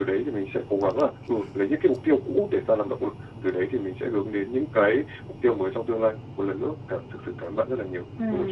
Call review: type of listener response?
taking over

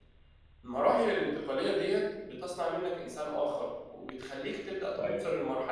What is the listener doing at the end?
listening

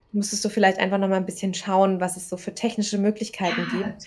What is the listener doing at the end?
taking over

